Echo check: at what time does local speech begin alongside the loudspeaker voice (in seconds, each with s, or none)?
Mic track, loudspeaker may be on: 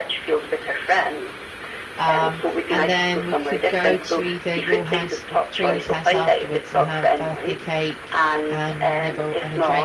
2.0 s